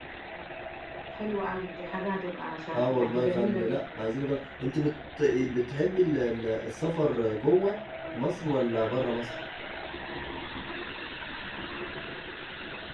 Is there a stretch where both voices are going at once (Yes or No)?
Yes